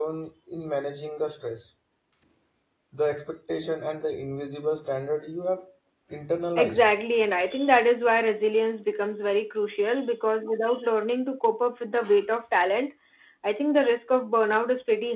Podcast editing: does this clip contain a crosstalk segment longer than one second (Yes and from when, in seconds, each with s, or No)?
No